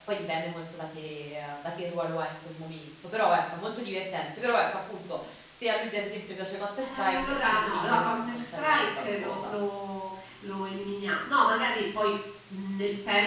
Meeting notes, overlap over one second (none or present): present